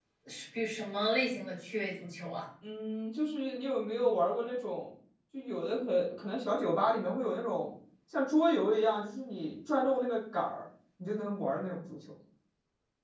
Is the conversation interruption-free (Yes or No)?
Yes